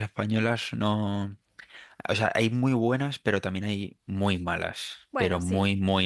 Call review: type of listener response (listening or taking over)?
listening